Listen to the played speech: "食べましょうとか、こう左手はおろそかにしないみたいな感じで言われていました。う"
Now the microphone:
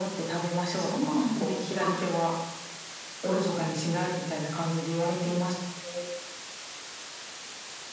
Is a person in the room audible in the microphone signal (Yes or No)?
Yes